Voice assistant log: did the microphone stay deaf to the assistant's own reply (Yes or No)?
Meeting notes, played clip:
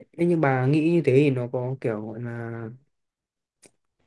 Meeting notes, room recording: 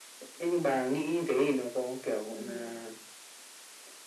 No